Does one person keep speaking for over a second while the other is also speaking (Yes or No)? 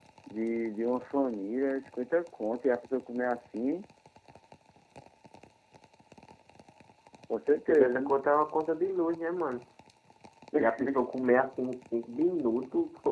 No